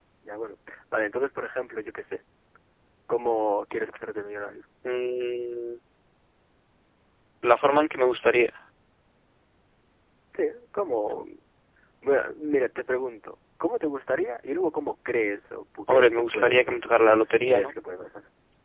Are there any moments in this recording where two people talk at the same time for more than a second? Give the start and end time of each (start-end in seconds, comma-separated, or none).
15.9-17.7